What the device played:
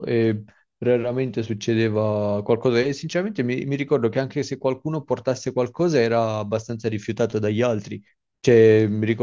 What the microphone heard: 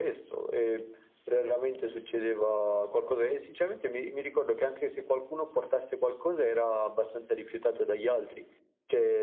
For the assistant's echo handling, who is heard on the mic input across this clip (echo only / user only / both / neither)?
echo only